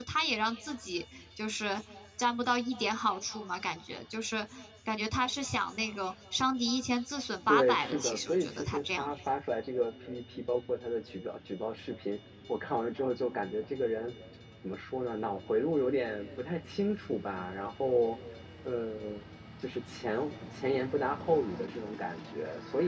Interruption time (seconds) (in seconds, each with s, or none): 7.5 s